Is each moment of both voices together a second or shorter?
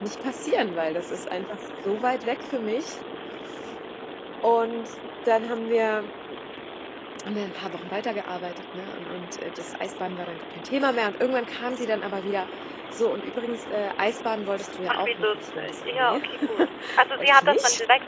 No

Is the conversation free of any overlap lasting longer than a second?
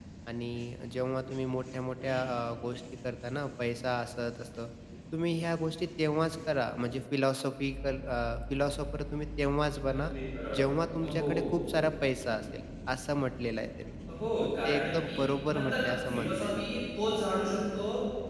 No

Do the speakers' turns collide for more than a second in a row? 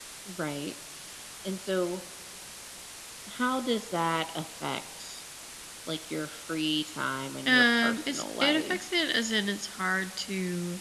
Yes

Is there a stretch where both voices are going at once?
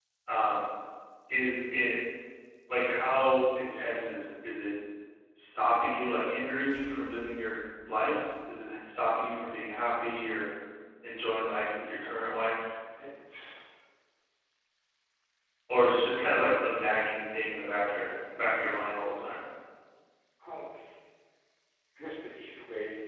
No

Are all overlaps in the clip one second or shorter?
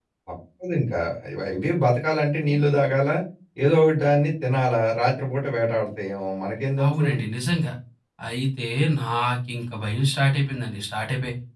Yes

